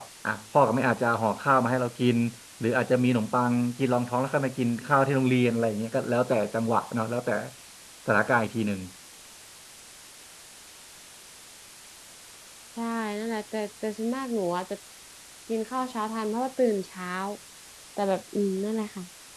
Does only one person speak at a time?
Yes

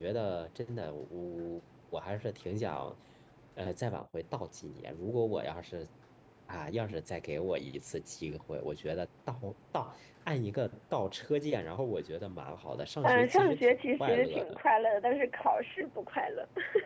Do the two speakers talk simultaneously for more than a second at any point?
Yes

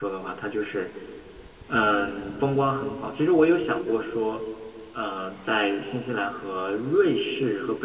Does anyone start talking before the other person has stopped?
No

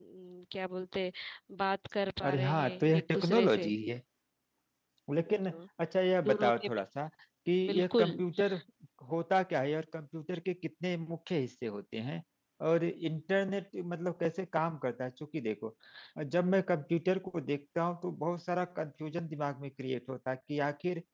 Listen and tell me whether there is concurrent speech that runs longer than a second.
Yes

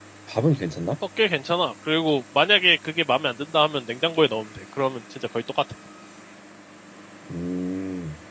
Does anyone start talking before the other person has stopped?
No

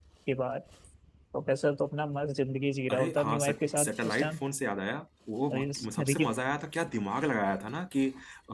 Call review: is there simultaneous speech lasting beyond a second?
Yes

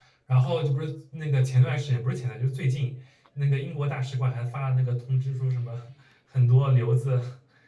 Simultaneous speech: No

